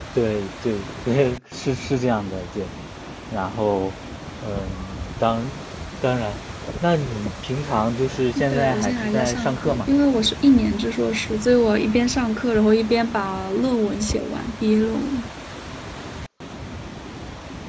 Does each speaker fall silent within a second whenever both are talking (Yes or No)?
No